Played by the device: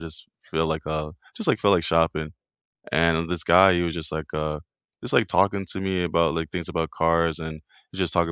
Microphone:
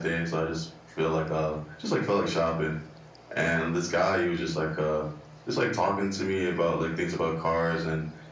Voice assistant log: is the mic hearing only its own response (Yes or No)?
Yes